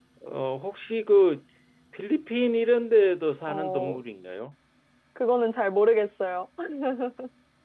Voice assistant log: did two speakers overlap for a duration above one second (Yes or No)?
No